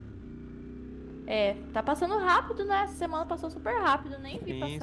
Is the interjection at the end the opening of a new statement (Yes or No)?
Yes